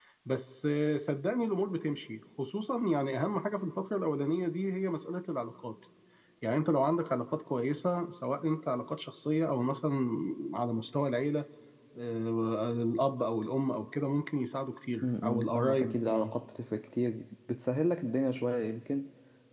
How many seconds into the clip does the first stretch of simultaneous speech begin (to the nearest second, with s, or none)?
15 s